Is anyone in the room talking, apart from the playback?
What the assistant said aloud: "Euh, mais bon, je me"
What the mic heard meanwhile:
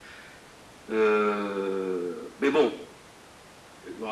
No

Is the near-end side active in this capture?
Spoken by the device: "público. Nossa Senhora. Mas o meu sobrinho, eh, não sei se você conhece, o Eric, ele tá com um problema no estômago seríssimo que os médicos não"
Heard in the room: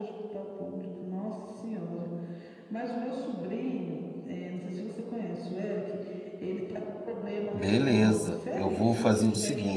Yes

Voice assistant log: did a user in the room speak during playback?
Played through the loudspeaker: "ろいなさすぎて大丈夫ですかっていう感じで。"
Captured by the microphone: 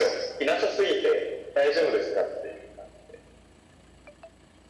No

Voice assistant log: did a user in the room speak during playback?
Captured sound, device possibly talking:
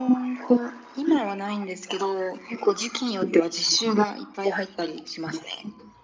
No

